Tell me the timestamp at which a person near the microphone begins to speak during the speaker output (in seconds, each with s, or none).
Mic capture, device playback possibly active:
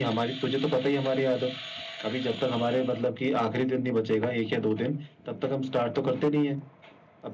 none